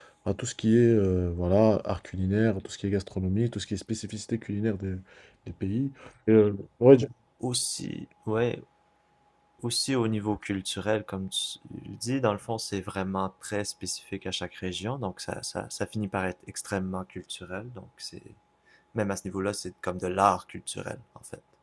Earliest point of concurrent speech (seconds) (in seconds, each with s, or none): none